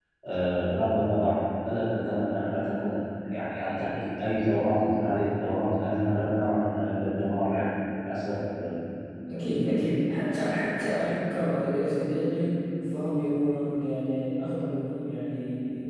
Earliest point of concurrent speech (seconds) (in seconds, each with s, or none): none